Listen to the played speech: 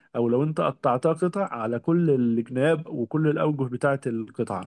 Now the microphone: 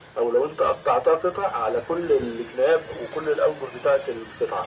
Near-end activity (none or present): none